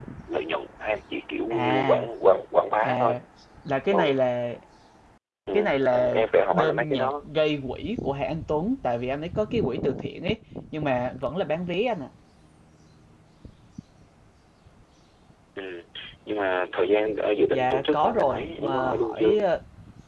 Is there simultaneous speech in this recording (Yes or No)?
Yes